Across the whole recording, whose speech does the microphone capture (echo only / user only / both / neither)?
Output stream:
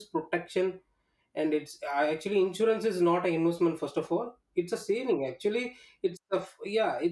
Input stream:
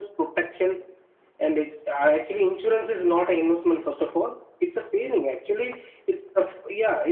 echo only